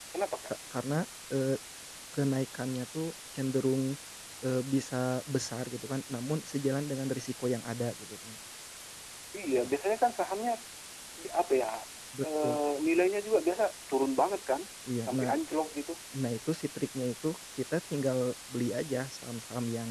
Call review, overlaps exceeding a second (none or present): none